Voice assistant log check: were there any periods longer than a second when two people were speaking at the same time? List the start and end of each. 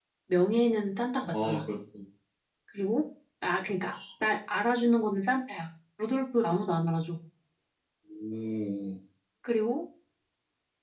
none

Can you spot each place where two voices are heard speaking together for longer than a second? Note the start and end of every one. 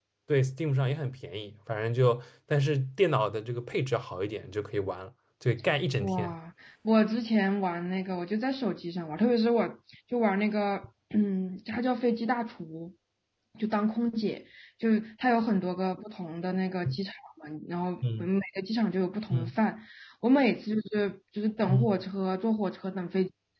none

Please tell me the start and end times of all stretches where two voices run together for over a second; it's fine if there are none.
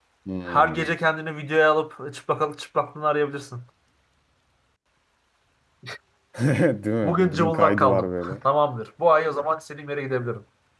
7.0-8.4

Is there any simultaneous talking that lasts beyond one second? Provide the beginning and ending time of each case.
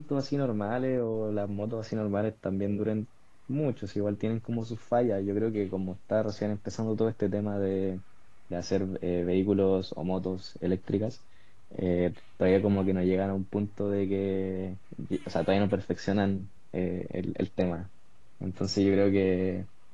none

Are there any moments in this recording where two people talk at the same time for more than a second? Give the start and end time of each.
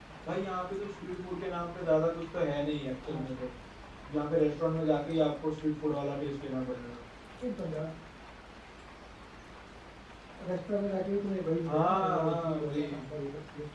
11.7-13.0

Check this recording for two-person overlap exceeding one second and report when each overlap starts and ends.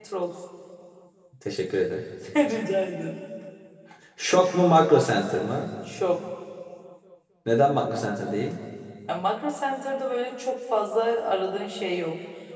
none

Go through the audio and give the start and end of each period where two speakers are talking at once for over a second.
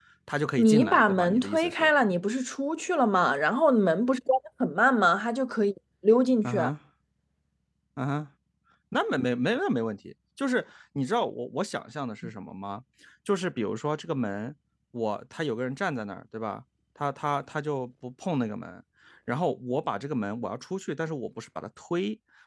0.6-1.9

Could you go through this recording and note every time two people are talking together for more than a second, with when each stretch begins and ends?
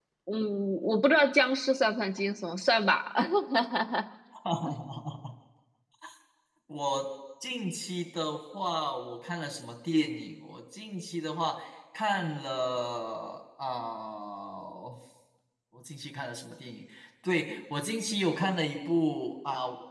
none

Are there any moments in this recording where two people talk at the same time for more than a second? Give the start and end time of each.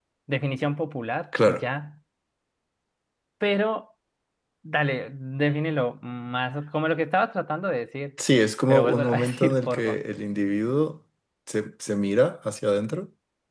8.7-10.0

